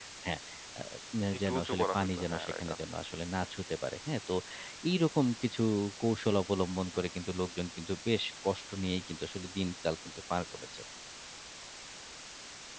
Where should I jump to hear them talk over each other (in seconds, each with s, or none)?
1.5 s